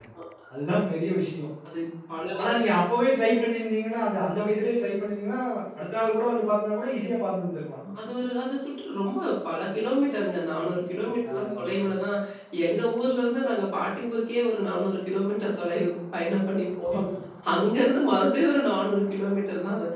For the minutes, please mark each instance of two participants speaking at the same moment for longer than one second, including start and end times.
none

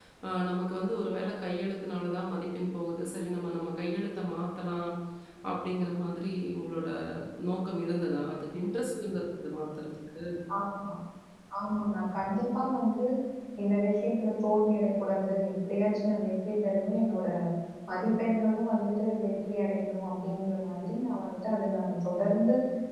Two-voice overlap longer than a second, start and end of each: none

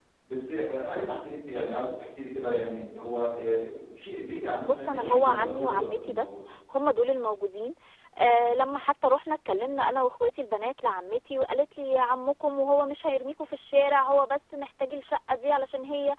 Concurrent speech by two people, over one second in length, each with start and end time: 4.6-6.2

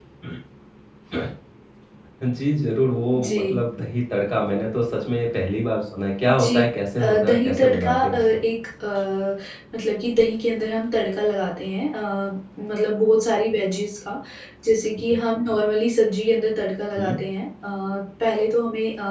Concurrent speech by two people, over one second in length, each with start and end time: 7.0-8.4

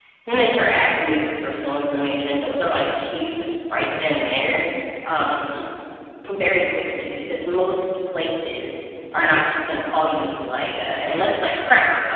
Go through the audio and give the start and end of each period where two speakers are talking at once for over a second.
none

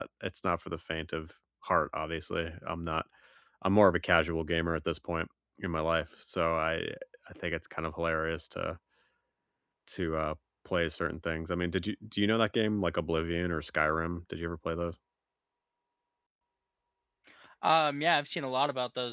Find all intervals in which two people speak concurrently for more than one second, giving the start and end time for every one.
none

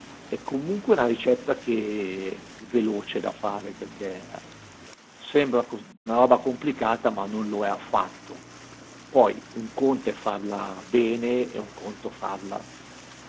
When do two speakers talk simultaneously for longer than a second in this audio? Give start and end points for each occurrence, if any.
none

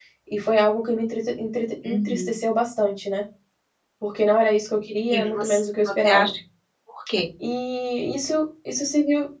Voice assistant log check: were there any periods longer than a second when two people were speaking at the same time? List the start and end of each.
5.1-6.3

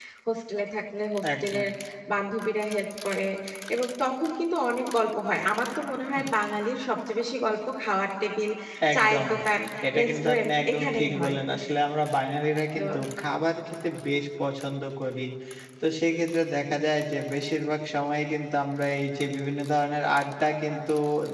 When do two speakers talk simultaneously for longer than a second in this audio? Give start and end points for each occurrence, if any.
10.0-11.4

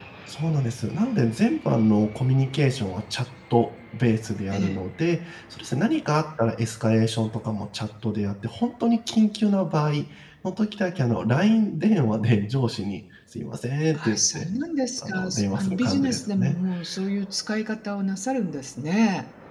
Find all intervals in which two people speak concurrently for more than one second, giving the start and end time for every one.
15.1-16.6

